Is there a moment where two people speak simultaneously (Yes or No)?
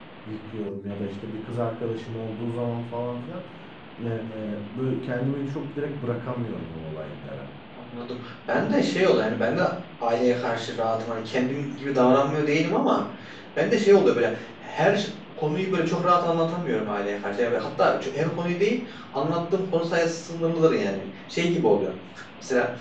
No